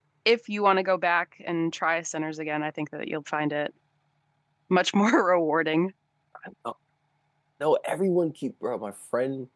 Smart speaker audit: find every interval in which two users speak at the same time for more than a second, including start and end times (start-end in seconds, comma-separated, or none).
none